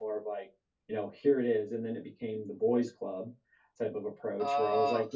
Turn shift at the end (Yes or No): No